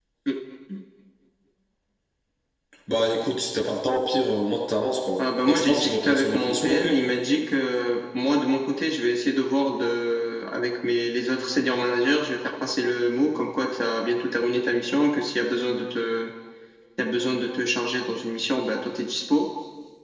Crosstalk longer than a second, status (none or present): present